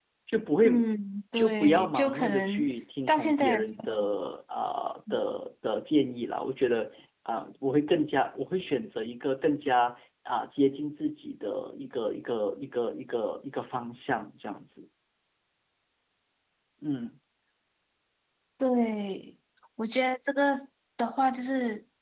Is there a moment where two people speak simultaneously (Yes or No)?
Yes